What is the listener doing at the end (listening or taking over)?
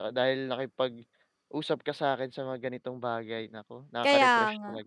taking over